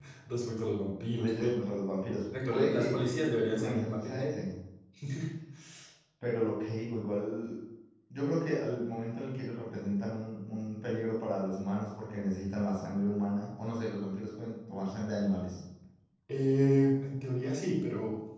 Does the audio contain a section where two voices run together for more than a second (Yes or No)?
Yes